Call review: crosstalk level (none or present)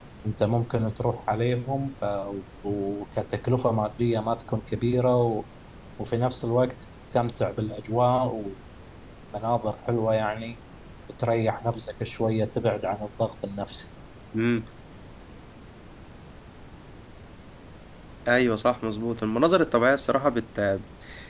none